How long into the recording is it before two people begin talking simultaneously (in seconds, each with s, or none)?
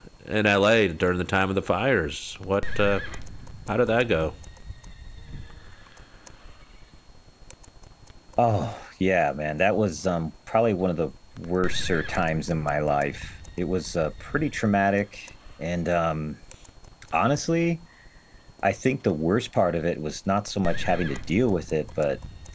none